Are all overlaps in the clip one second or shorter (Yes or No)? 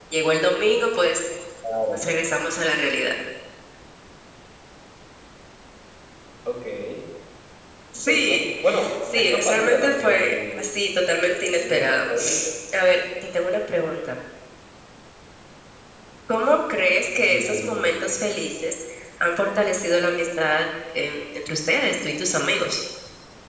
No